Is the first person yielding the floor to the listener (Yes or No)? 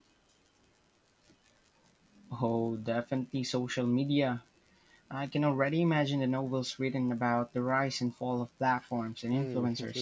Yes